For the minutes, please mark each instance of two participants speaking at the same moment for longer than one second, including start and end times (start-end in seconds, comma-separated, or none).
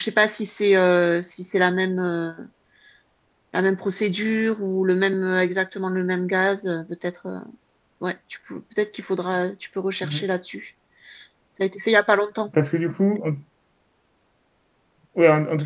none